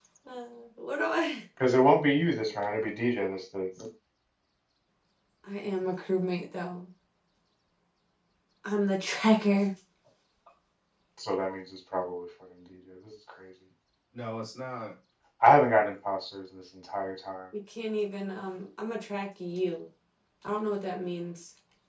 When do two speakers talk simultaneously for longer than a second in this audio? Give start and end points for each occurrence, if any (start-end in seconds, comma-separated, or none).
none